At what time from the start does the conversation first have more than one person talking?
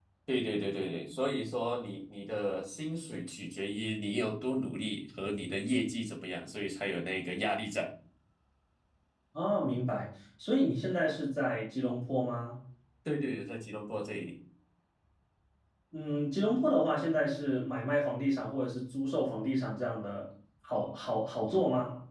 none

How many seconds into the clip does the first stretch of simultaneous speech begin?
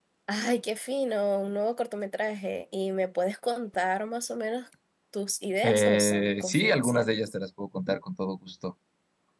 5.6 s

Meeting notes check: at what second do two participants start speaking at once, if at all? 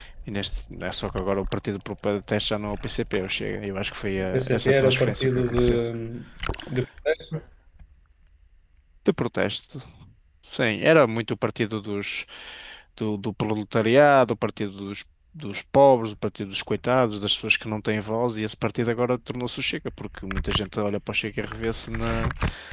4.3 s

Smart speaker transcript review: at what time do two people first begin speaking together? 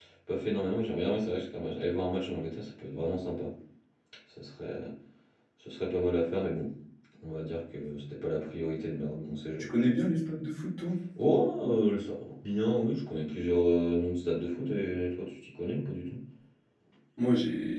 none

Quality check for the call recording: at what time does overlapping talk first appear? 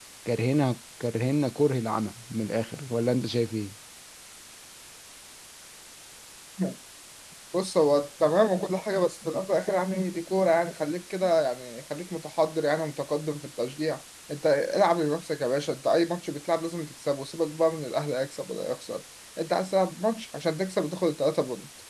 none

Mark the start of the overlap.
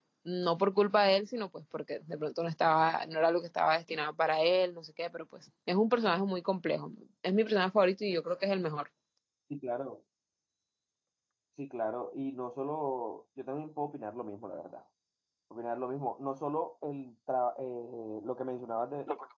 none

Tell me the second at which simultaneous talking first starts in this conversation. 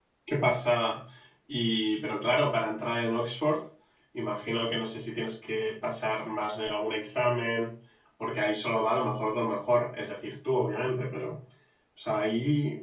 none

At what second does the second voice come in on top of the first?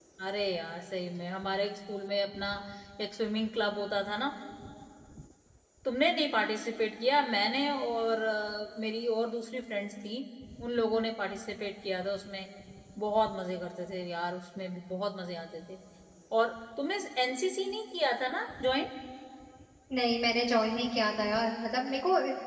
none

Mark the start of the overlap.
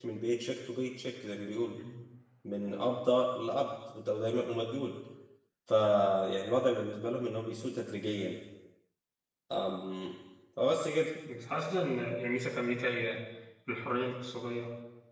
none

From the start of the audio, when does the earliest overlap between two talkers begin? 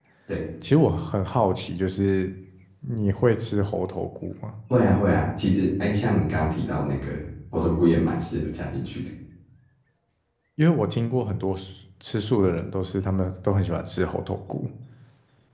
none

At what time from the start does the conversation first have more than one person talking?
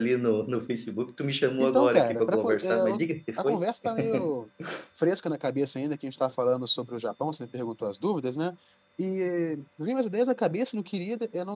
1.6 s

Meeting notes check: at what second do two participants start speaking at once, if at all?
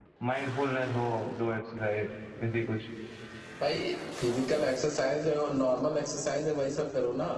none

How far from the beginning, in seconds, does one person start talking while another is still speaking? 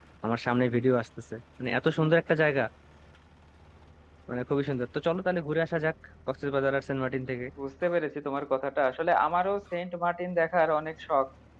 none

